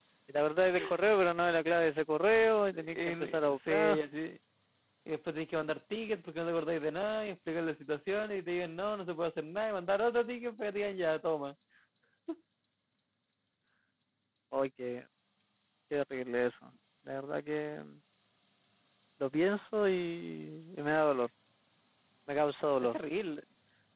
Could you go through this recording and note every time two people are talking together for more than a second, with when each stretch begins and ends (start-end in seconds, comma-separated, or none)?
2.7-4.0